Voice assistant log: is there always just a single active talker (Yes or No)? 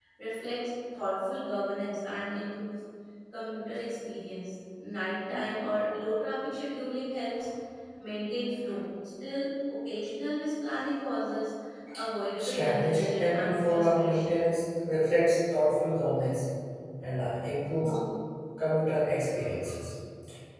No